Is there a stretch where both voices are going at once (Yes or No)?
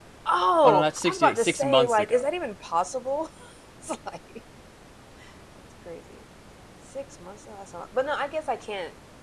Yes